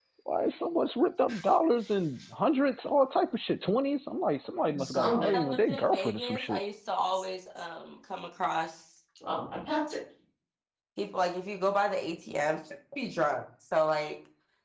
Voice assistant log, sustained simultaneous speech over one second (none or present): present